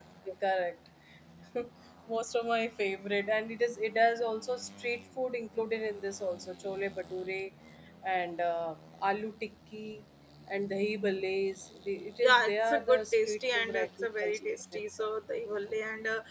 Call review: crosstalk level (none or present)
present